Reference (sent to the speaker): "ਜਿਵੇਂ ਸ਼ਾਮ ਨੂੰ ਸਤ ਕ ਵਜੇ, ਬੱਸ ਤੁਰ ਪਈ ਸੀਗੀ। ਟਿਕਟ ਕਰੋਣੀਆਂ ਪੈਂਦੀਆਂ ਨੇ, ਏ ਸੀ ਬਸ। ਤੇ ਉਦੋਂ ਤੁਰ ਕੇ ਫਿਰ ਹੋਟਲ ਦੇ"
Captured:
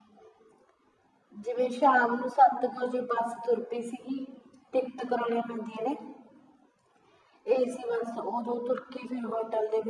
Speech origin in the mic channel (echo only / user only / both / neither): echo only